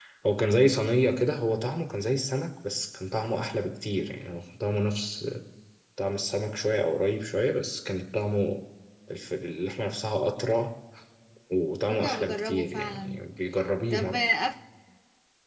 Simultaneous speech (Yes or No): Yes